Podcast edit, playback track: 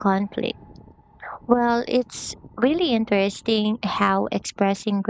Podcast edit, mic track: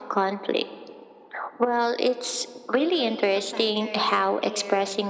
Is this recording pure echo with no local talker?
No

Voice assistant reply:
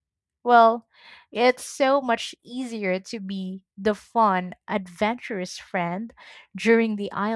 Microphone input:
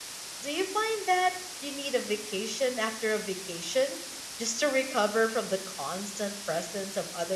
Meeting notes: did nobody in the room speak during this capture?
No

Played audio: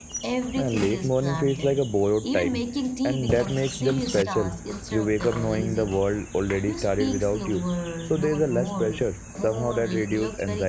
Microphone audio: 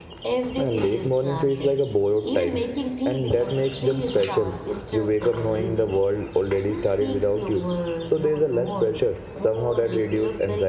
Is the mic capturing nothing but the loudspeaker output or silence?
Yes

